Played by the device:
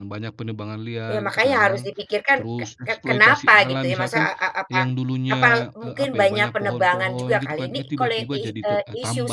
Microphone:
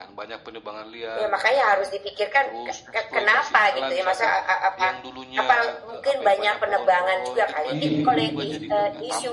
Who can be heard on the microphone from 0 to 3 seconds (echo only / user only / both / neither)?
echo only